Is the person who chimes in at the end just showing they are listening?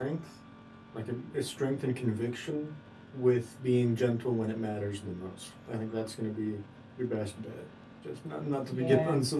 Yes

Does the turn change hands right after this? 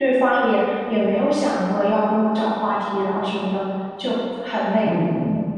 Yes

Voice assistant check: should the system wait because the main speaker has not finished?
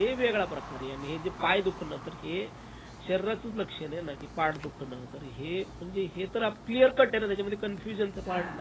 No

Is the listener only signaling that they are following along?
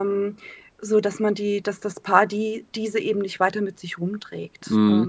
No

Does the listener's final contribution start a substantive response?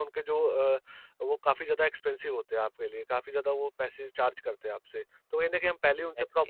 No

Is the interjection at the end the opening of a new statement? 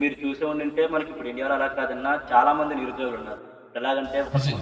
No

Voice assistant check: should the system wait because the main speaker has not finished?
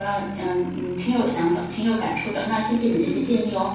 No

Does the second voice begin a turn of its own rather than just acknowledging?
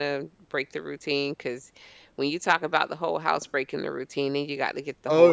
No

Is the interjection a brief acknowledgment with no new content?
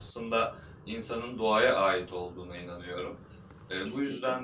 Yes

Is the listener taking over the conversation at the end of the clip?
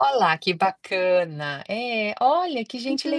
Yes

